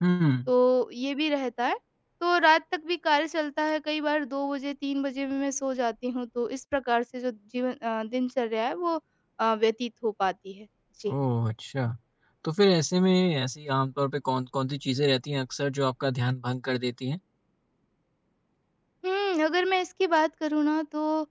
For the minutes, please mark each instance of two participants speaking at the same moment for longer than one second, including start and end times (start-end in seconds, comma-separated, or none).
none